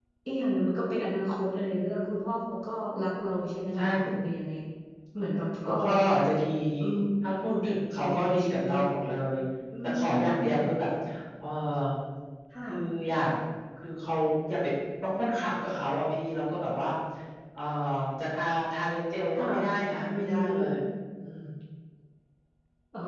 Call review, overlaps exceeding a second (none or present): present